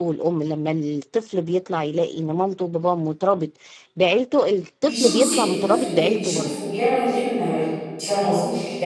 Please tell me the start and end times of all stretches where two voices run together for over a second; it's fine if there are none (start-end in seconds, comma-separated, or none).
4.9-6.5